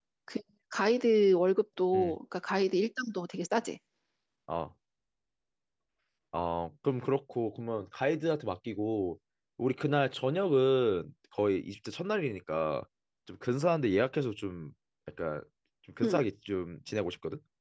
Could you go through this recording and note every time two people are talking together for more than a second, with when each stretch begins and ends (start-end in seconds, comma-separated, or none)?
none